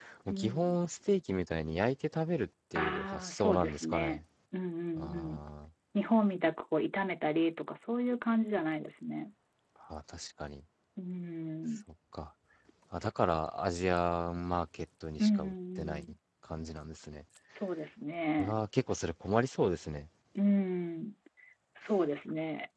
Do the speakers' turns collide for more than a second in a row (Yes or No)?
Yes